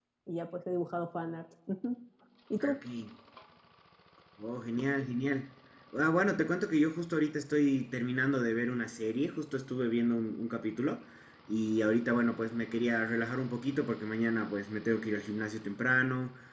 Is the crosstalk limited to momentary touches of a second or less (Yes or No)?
Yes